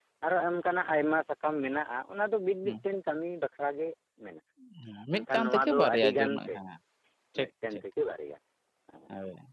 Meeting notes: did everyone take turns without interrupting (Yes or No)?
No